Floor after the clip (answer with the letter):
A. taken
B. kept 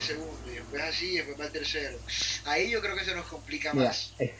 A